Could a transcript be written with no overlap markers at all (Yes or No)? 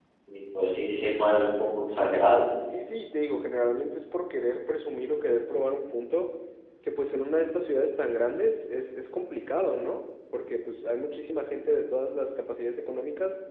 Yes